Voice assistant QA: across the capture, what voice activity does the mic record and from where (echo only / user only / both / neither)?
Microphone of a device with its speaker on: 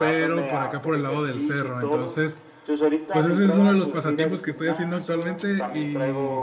both